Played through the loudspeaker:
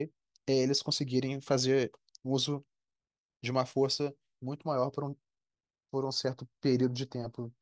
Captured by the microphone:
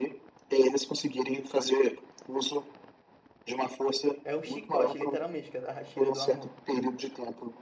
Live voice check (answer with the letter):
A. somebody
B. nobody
A